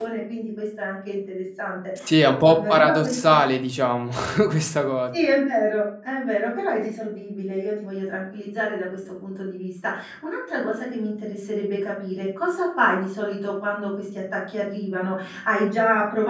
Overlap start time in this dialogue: 2 s

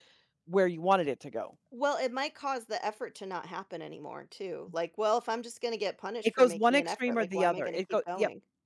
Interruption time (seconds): 6 s

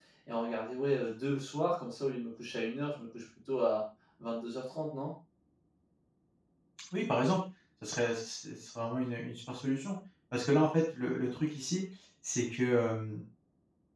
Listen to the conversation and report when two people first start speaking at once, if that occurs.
none

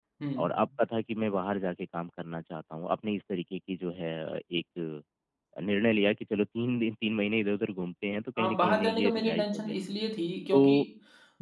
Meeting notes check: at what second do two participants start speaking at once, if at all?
8 s

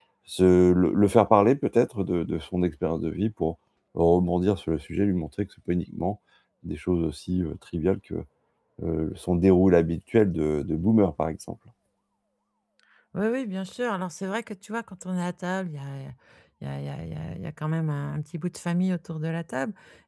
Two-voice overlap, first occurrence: none

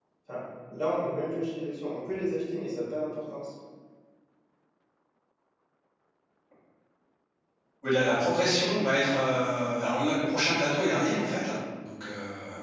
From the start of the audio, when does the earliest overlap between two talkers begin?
none

